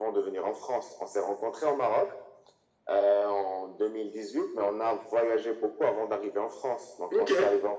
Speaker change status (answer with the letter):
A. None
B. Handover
A